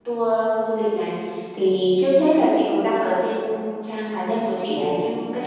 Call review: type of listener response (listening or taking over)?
listening